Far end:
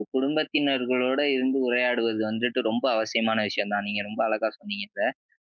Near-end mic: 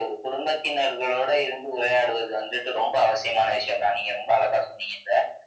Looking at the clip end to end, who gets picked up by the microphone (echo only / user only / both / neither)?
echo only